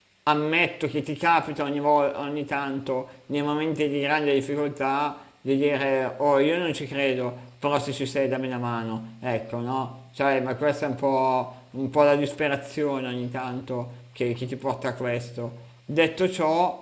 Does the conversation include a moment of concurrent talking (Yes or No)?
No